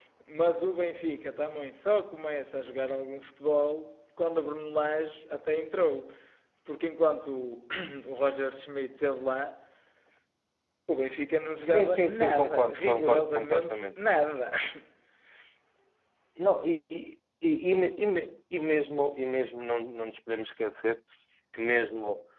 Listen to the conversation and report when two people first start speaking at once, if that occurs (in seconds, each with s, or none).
11.7 s